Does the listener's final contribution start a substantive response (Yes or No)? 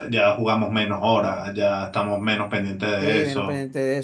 Yes